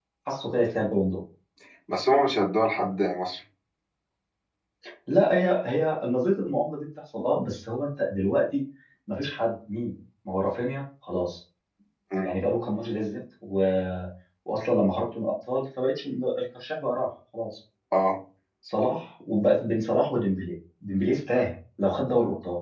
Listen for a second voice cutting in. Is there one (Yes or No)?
No